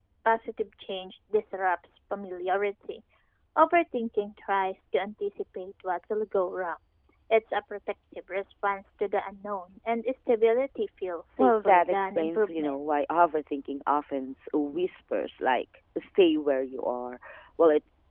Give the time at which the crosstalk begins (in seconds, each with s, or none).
11.4 s